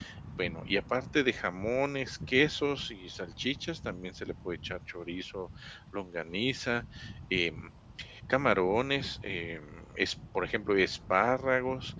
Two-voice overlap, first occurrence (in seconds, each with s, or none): none